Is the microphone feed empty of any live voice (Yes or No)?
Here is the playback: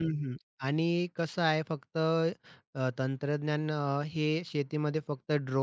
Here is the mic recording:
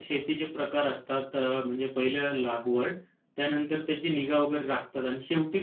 No